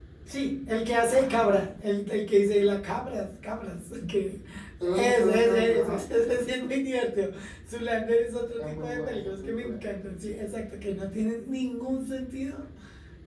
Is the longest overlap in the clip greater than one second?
Yes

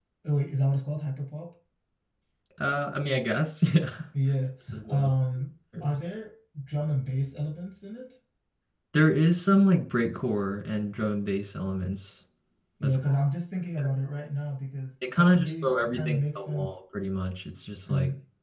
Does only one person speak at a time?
No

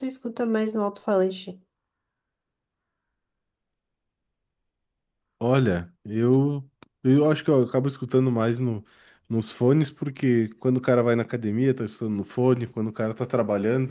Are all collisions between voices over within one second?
Yes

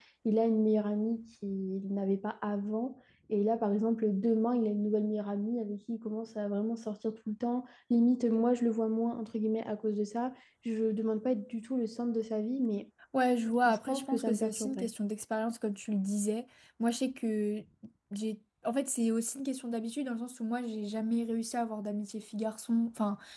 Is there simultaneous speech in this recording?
Yes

